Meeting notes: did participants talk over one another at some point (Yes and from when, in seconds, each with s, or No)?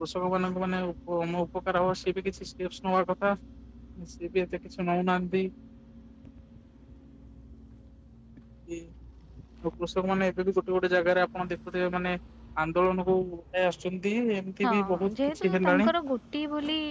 Yes, from 14.6 s